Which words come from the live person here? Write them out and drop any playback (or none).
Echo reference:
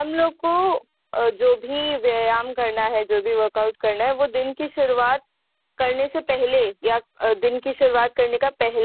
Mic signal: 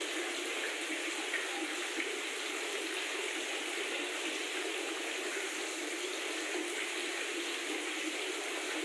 none